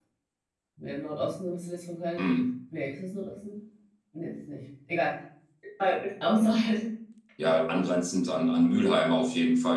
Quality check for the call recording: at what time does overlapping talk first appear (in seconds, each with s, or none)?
none